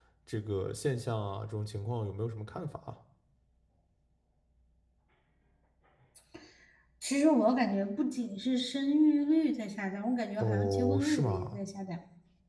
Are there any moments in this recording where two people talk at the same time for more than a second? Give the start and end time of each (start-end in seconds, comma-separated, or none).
10.4-11.6